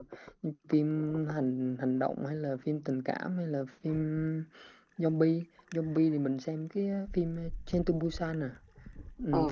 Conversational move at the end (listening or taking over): taking over